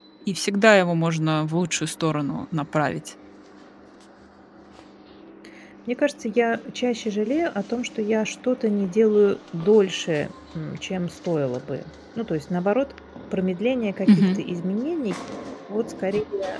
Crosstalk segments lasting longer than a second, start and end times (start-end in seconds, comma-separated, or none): none